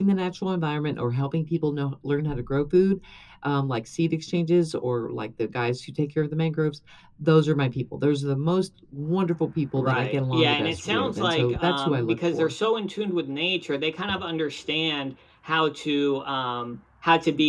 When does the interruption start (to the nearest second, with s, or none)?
10 s